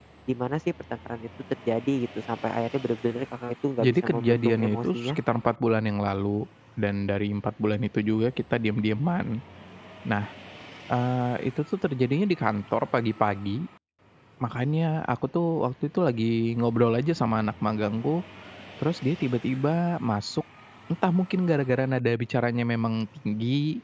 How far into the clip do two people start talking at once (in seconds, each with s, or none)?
3.8 s